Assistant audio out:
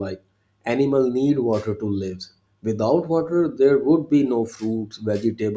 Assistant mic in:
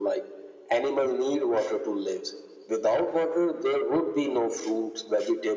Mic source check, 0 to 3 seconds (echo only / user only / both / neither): echo only